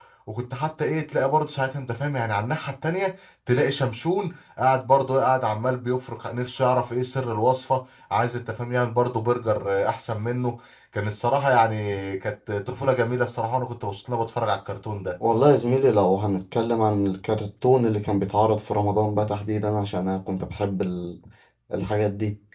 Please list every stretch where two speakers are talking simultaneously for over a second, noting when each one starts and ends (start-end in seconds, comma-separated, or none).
none